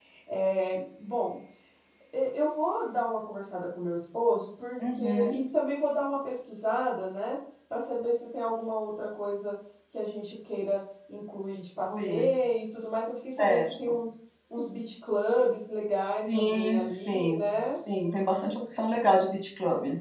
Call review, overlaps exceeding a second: present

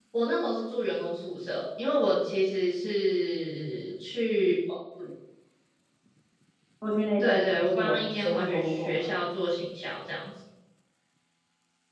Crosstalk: present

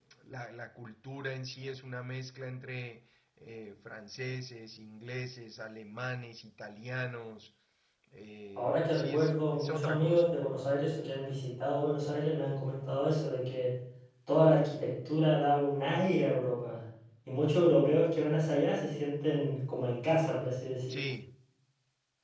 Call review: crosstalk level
present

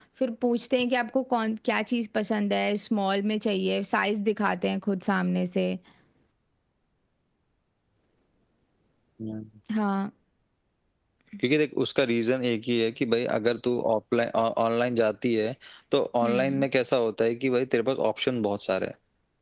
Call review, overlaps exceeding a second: none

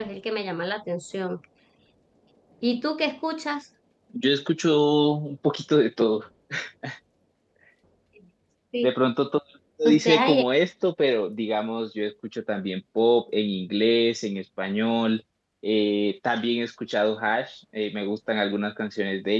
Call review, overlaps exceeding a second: none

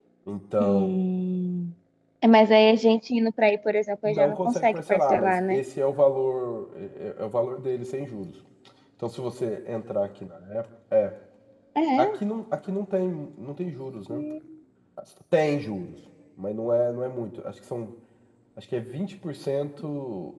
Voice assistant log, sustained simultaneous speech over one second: present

